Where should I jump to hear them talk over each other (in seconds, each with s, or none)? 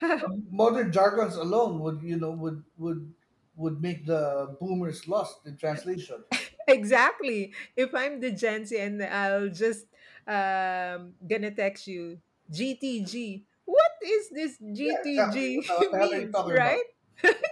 14.8 s